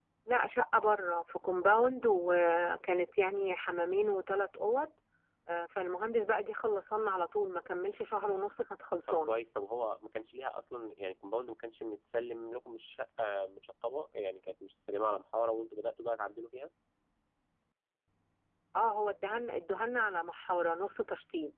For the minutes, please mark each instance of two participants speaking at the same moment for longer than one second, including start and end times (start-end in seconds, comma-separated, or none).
none